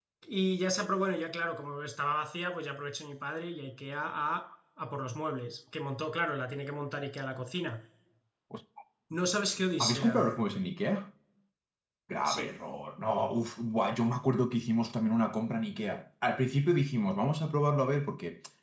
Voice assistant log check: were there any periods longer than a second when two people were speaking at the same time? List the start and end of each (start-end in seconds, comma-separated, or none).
none